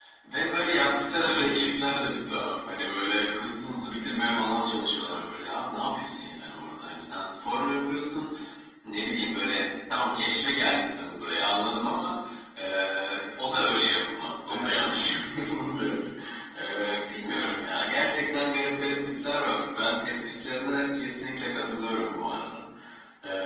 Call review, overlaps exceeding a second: none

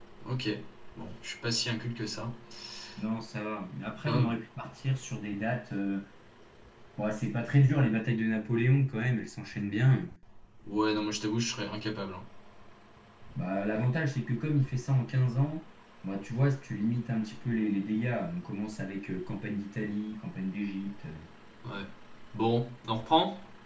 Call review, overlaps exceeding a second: none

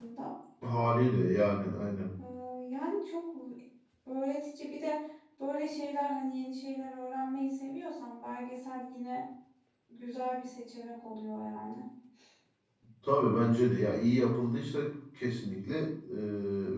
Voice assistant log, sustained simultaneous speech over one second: none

